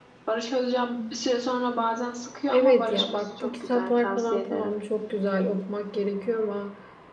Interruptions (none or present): present